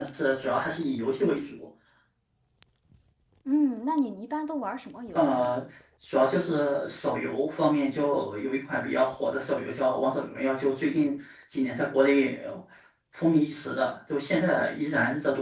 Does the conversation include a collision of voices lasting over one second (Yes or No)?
No